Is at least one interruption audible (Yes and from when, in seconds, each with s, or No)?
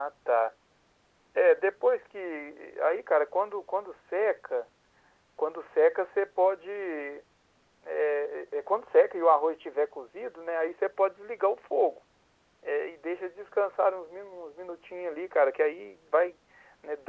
No